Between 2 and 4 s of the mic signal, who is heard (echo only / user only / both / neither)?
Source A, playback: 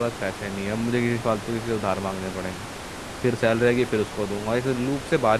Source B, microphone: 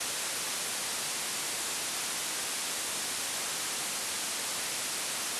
neither